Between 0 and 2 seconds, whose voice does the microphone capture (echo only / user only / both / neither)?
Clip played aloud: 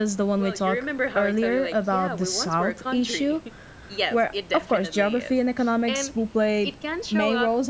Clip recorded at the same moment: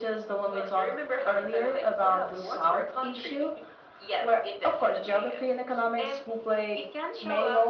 echo only